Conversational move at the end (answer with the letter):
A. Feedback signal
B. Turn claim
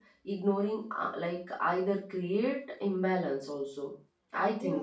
B